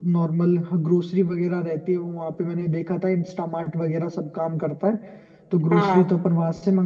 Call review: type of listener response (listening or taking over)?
listening